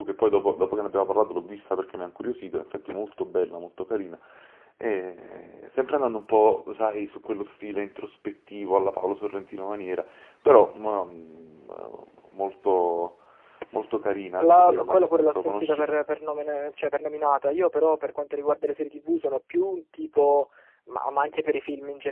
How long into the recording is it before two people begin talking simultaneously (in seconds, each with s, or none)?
14.4 s